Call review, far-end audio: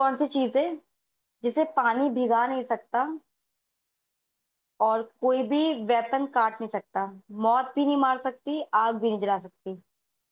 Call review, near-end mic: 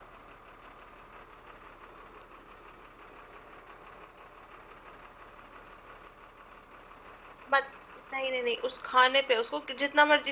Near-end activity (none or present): present